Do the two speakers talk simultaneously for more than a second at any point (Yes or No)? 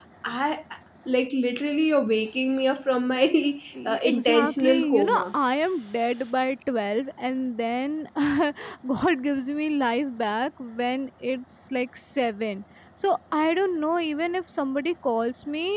Yes